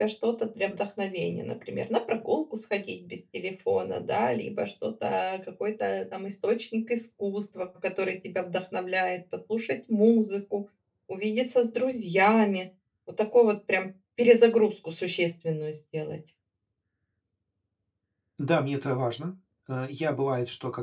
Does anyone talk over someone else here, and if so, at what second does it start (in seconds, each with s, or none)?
none